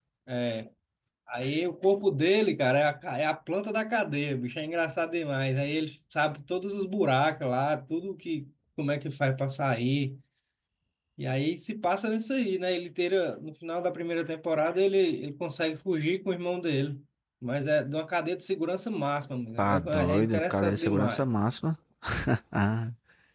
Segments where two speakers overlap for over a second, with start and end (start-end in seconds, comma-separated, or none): 19.6-21.3